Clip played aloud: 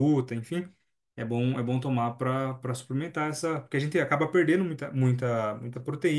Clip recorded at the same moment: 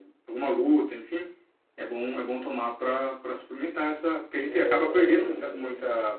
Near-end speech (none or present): present